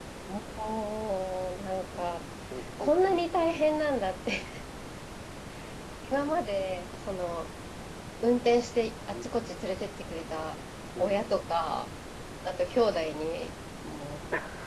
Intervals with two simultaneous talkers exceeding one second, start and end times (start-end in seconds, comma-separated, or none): none